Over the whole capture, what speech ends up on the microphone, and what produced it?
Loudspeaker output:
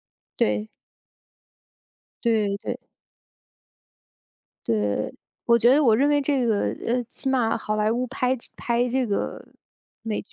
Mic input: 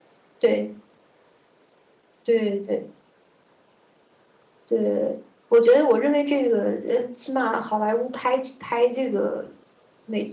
echo only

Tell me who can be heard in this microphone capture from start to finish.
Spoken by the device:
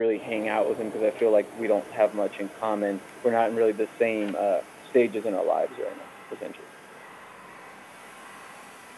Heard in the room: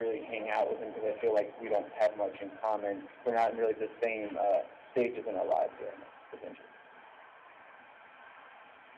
echo only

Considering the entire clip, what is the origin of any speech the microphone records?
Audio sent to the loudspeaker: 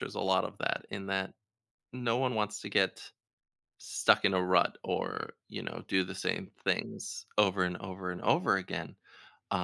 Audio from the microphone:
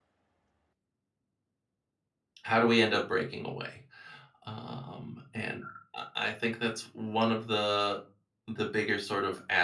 user only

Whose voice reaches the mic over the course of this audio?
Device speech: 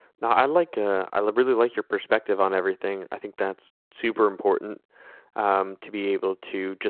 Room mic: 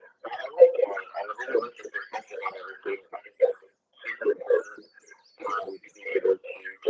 echo only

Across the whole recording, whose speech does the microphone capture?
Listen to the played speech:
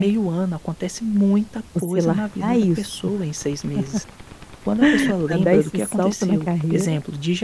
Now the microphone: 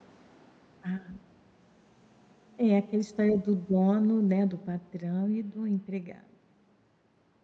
user only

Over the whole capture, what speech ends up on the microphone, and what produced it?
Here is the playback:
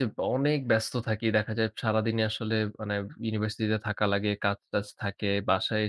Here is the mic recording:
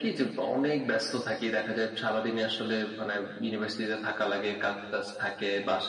echo only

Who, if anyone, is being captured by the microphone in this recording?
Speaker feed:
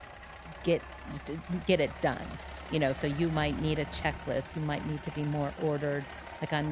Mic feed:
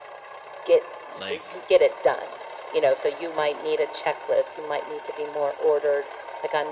both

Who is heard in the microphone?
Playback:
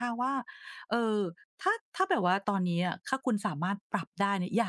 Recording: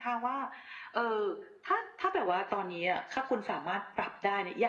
echo only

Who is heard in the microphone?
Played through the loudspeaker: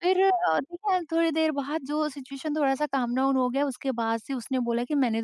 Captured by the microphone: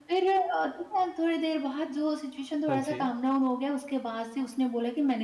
both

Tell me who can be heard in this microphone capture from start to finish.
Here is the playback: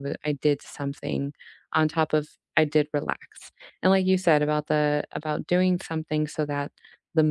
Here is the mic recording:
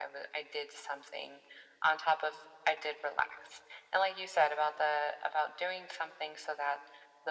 echo only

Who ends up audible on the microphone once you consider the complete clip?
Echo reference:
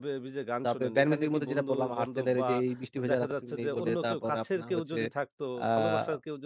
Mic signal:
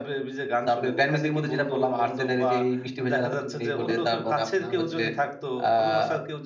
echo only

